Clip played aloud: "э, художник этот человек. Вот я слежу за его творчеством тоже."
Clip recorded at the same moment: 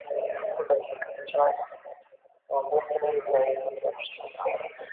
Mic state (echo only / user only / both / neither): echo only